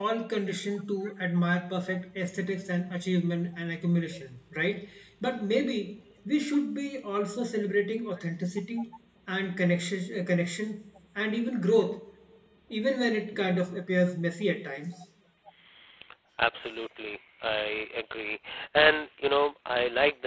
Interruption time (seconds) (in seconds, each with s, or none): none